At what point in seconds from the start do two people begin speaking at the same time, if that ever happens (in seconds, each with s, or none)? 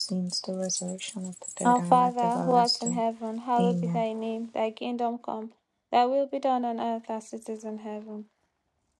1.6 s